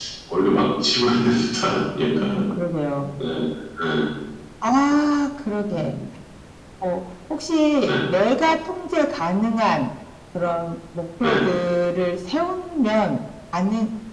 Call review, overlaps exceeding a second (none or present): none